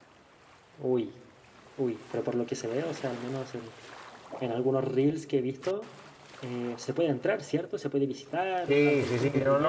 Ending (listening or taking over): taking over